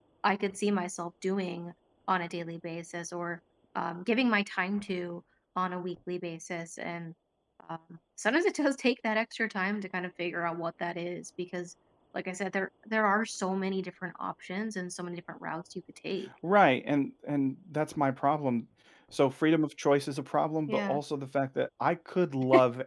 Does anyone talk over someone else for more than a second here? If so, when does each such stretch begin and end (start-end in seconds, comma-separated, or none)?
none